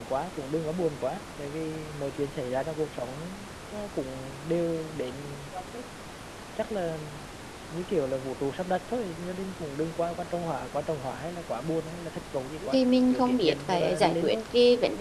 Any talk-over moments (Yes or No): Yes